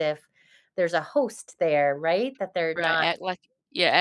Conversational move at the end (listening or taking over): taking over